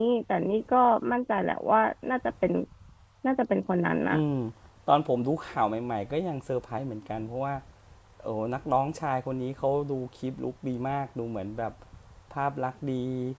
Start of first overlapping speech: none

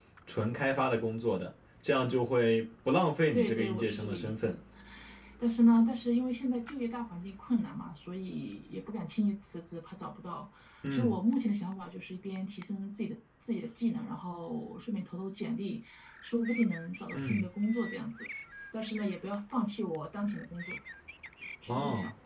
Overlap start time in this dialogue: 3.3 s

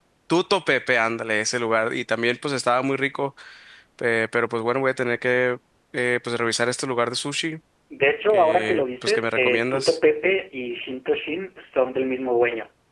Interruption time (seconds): 8.3 s

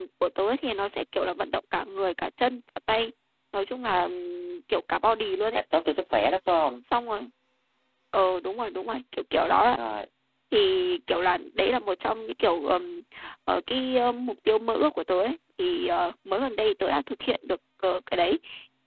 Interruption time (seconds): none

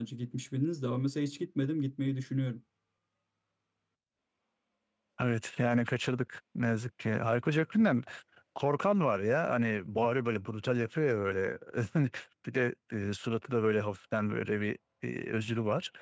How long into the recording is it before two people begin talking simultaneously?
none

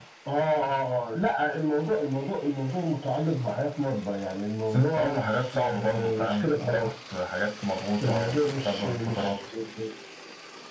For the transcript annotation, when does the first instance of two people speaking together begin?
4.7 s

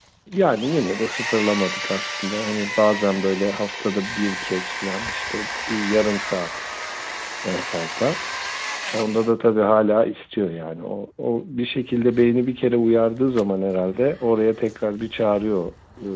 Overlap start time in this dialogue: none

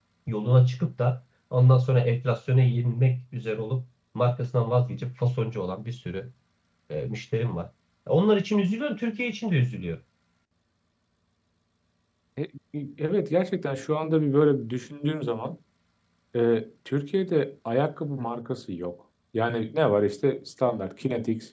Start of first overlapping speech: none

